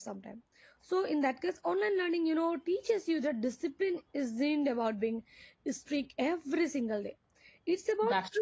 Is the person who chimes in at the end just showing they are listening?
Yes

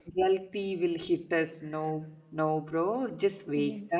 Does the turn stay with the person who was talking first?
Yes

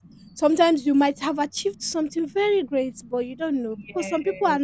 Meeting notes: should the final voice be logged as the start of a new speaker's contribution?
No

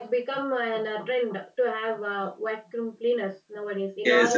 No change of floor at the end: No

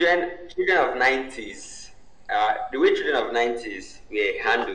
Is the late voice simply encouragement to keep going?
Yes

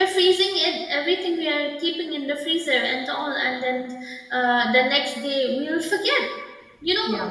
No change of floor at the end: Yes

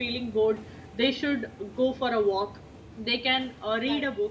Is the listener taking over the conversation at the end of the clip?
No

